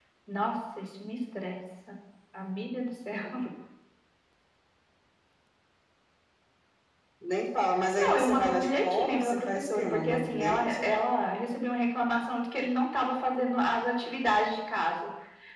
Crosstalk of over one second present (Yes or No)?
Yes